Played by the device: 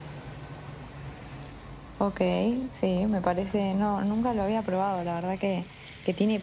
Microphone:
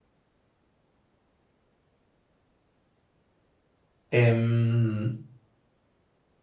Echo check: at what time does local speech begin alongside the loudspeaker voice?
4.1 s

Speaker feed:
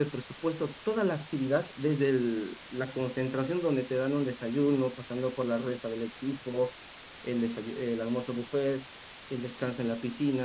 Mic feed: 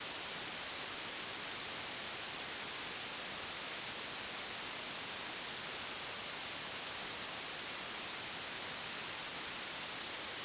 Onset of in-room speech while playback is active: none

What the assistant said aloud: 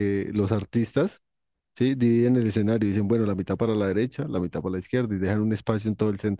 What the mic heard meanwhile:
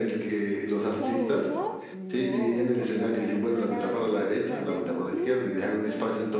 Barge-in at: 0.9 s

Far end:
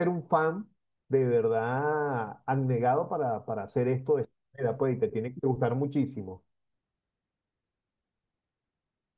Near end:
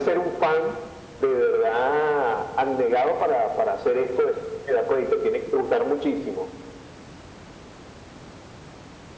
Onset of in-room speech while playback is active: none

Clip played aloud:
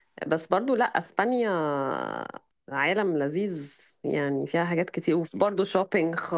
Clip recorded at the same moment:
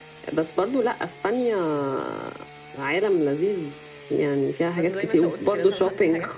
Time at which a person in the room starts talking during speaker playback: 4.7 s

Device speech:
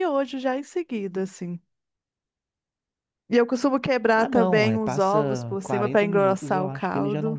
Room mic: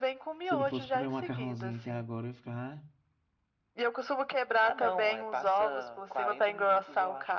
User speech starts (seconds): 0.4 s

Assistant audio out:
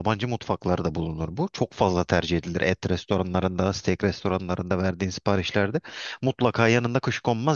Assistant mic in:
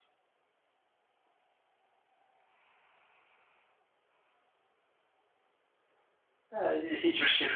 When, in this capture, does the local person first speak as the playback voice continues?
6.5 s

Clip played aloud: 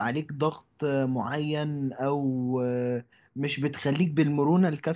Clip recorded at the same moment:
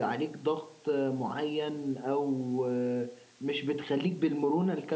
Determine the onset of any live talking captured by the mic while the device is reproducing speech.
none

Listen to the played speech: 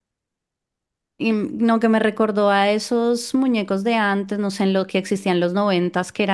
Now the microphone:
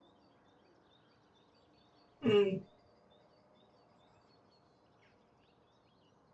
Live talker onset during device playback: 2.2 s

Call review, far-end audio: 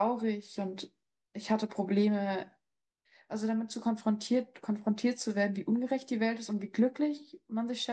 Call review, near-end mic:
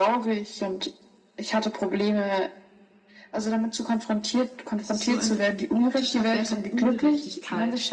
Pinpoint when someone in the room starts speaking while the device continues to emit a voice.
4.7 s

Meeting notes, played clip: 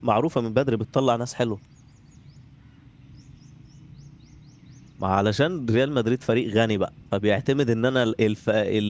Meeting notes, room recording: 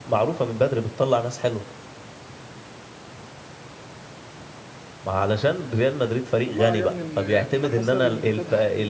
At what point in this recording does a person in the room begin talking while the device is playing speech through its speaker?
6.5 s

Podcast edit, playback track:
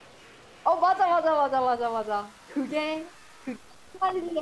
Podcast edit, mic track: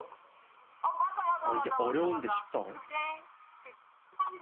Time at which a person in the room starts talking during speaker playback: 1.4 s

